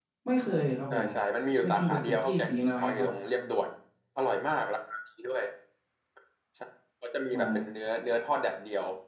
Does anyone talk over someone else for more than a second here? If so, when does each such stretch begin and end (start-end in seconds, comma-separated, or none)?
1.6-3.1